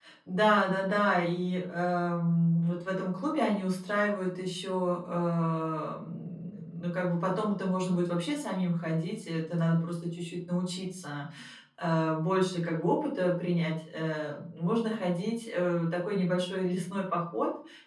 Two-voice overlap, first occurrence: none

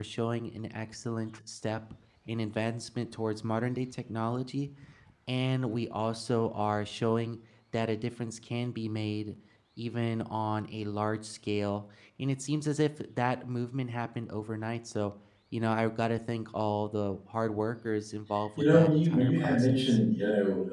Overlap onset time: 18.6 s

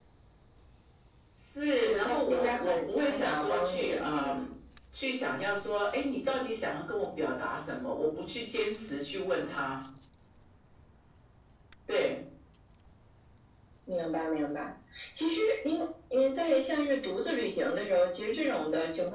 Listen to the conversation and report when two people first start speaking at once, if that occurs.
1.8 s

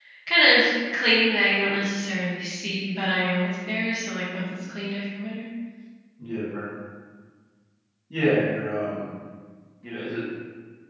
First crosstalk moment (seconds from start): none

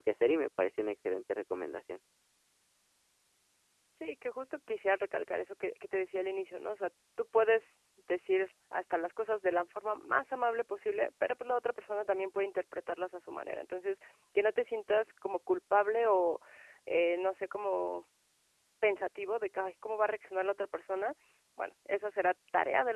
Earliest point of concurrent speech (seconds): none

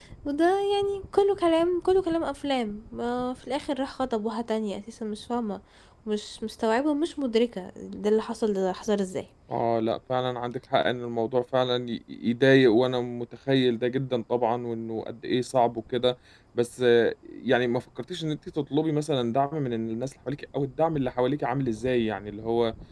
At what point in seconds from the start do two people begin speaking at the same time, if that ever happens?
none

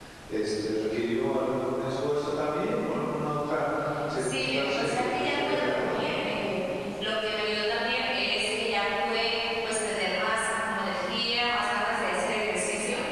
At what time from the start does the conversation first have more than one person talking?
4.2 s

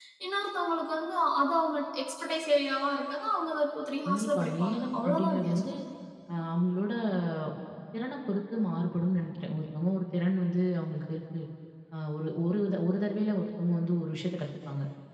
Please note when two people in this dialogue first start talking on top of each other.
4.0 s

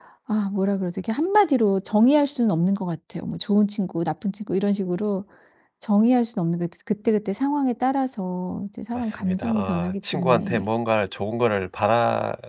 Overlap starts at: 8.9 s

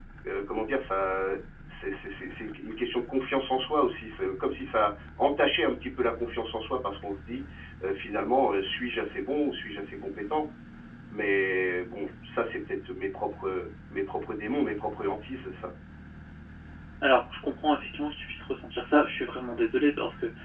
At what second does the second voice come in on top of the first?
none

